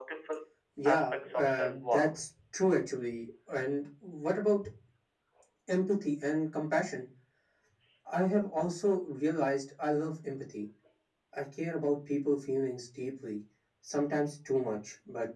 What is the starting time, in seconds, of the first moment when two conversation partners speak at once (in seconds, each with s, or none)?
0.8 s